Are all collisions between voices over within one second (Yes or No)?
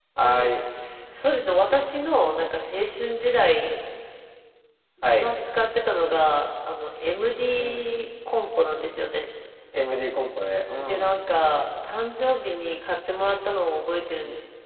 Yes